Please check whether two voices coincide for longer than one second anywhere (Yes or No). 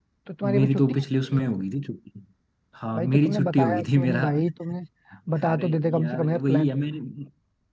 Yes